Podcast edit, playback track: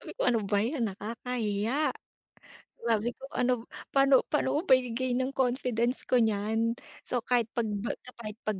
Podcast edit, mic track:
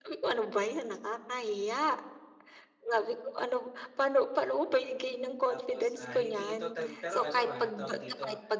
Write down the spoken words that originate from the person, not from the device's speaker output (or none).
Tapos, ah, hindi ito tan pero ano ah, tawag dito,